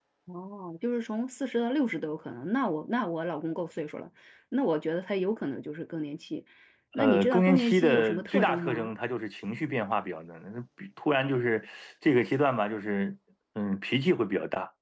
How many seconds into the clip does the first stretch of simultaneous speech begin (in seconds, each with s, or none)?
7.0 s